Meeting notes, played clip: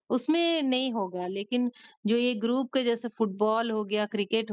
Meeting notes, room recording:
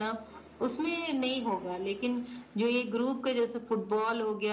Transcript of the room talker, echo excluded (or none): none